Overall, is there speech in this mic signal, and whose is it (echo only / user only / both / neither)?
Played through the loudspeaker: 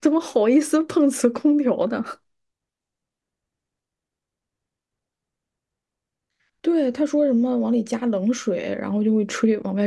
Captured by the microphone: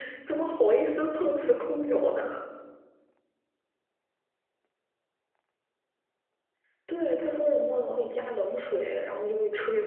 echo only